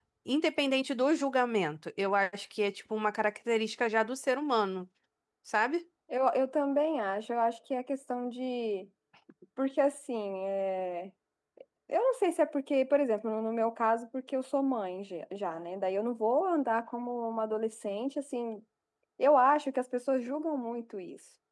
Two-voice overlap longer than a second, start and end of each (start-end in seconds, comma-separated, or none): none